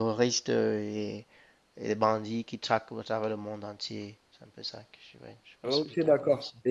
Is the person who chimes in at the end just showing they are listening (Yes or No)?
No